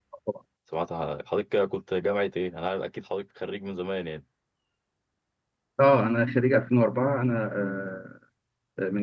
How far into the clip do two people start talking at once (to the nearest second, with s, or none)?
none